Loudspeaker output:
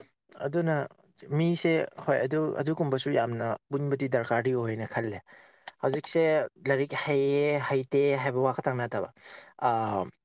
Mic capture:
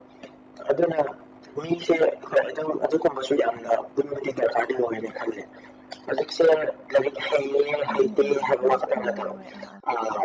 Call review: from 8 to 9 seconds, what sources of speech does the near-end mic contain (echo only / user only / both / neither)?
both